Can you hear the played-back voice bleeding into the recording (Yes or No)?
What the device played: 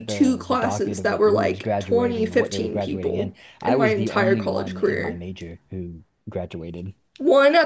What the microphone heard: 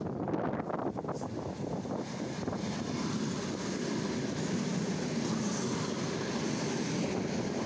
No